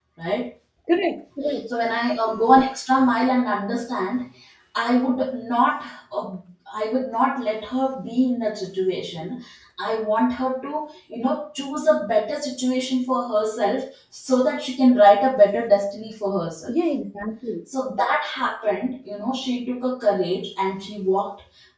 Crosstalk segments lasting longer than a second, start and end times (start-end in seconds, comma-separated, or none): none